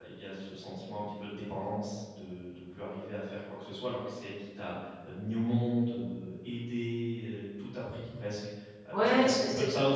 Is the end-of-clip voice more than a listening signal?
Yes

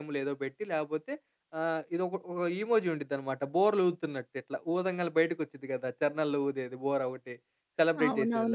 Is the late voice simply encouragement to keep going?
No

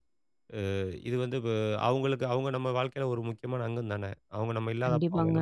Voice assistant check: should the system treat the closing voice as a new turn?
Yes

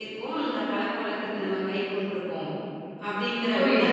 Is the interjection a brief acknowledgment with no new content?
No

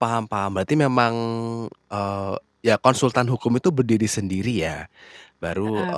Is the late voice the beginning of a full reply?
No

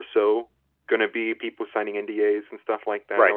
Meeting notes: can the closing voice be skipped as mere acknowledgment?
Yes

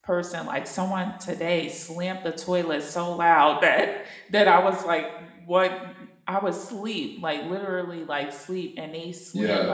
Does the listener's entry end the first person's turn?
No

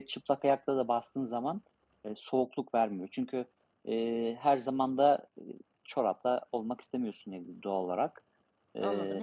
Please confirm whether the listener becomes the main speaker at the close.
Yes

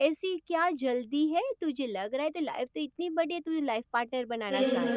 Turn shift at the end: Yes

